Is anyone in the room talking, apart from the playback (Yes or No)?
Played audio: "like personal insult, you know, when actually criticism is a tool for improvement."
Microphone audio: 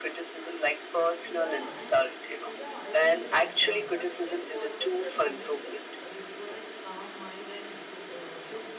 Yes